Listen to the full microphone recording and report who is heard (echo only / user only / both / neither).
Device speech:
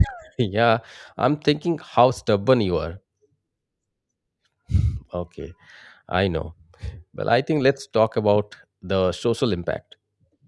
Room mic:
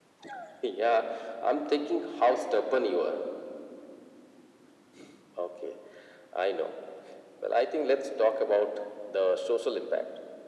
echo only